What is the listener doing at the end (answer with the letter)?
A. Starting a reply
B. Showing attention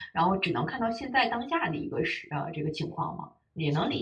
A